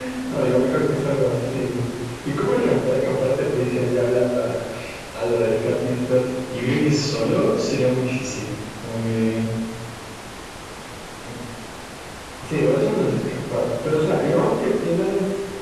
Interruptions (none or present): none